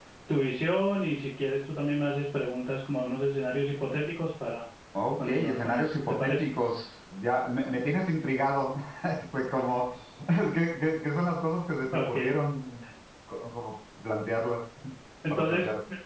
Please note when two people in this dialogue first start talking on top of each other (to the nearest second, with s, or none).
5 s